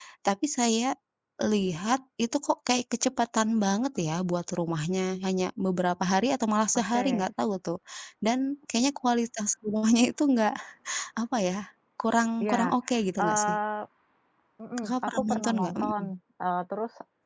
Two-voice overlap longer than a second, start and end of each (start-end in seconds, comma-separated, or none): 14.8-16.0